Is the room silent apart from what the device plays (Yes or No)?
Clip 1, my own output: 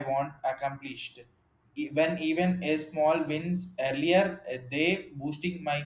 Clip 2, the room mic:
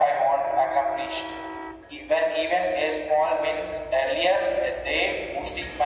Yes